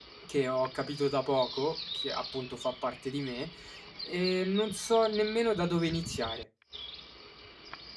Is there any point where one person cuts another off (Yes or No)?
No